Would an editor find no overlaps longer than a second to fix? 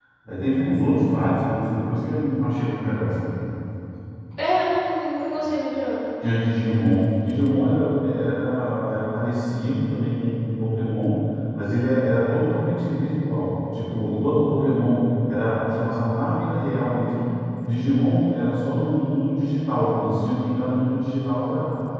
Yes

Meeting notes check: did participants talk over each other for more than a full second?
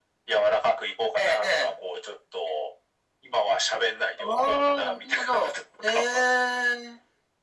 Yes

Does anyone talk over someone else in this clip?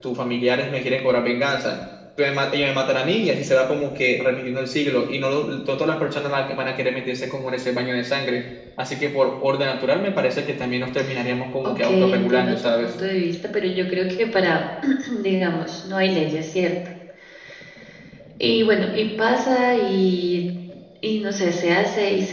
Yes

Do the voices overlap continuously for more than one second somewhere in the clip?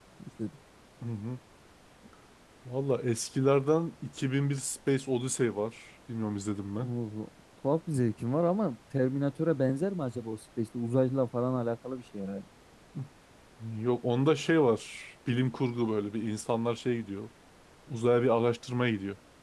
No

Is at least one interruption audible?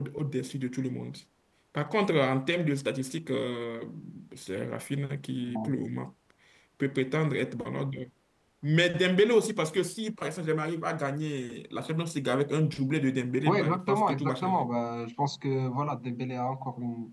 Yes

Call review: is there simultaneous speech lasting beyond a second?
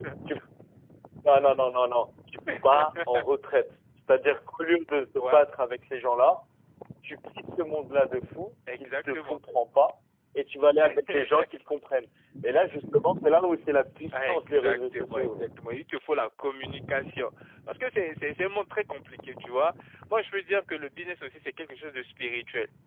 Yes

